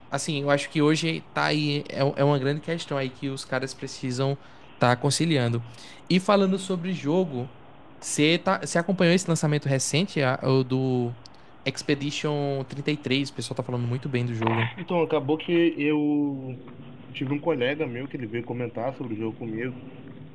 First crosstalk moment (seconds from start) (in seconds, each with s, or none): none